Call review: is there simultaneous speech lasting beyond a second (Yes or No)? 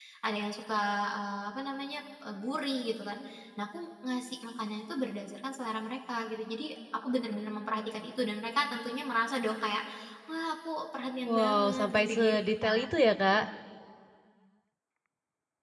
Yes